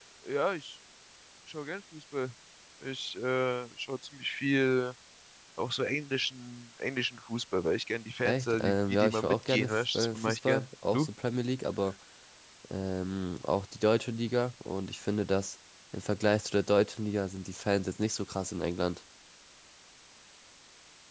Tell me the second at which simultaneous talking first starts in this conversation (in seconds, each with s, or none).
8.2 s